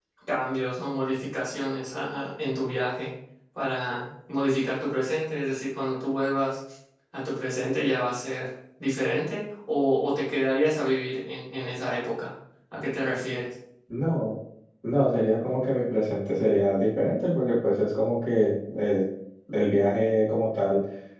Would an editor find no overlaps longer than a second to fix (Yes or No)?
Yes